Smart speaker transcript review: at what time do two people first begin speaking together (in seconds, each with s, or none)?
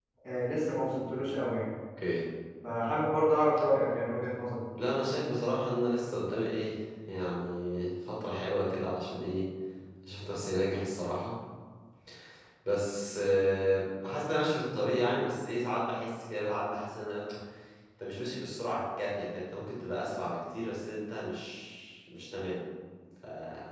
none